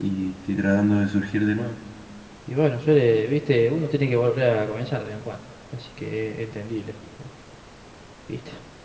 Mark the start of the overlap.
none

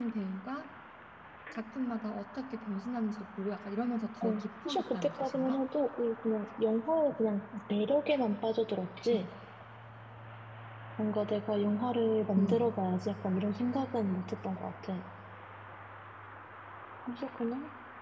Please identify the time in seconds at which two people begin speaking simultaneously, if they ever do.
4.2 s

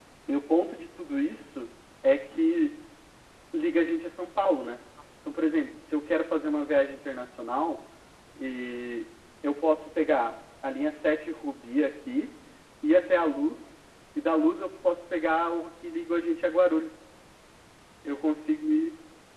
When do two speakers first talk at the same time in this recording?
none

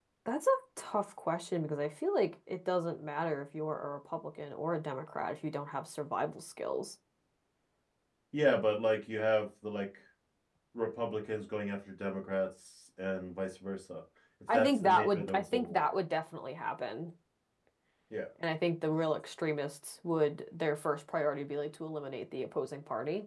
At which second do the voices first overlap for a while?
14.5 s

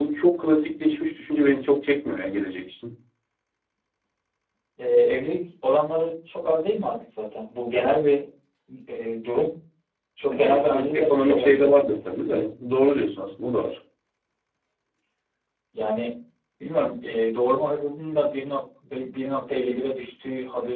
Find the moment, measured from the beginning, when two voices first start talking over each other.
10.3 s

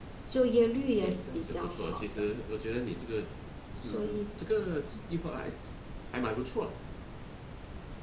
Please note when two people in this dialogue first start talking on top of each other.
1.0 s

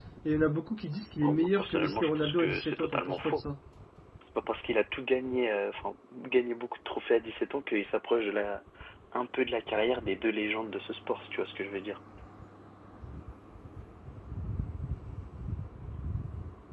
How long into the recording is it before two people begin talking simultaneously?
1.2 s

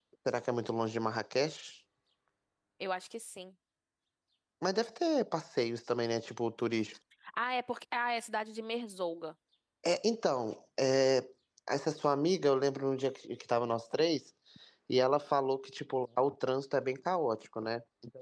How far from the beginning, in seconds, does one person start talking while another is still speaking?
none

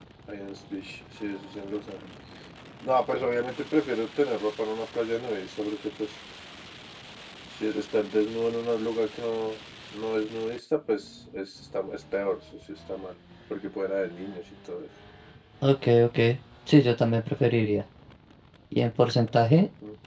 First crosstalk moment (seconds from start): none

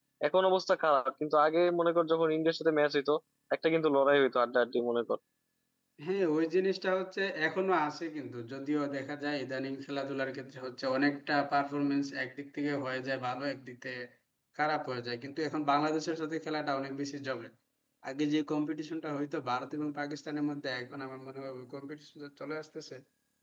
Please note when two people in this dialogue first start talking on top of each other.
none

